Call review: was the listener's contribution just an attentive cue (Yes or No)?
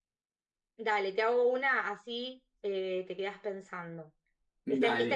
Yes